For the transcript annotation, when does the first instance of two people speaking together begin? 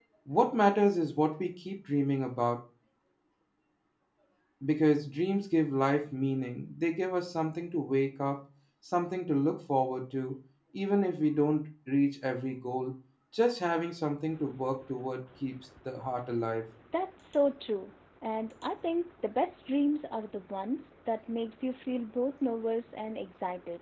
none

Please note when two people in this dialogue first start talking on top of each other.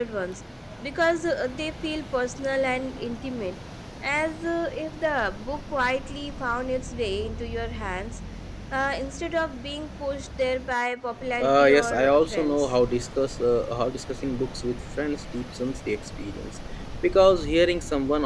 11.4 s

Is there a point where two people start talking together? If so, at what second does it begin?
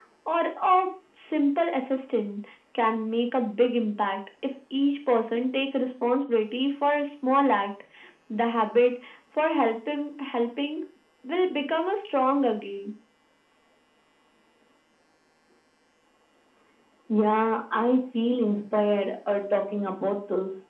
none

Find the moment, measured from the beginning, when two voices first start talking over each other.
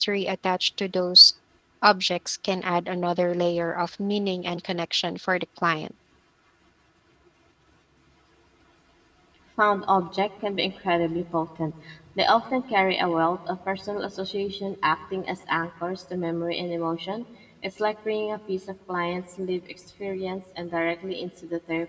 none

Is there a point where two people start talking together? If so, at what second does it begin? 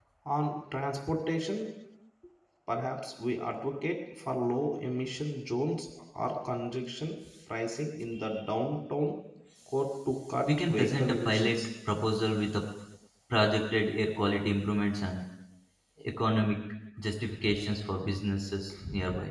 10.5 s

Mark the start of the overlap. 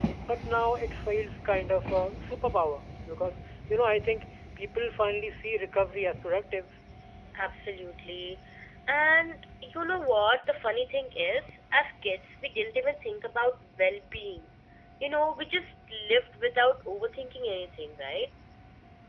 none

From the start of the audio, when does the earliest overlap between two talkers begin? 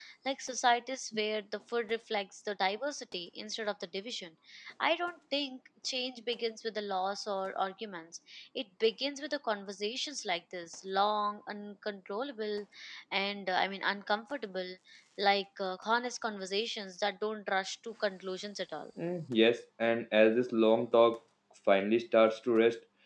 none

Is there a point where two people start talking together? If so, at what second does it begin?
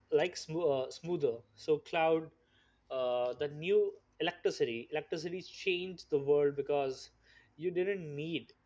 none

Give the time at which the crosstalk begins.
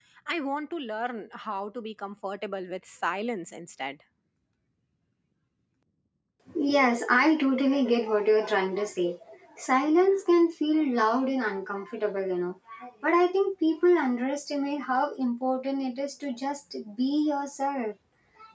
none

